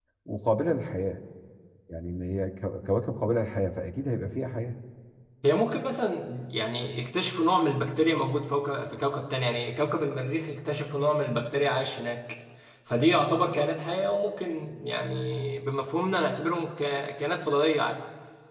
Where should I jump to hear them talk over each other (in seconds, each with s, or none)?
none